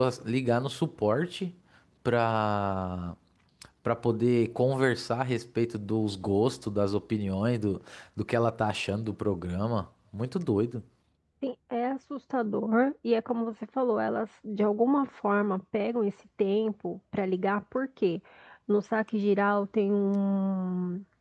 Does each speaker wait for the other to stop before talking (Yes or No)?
Yes